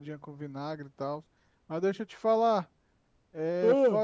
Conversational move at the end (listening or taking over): listening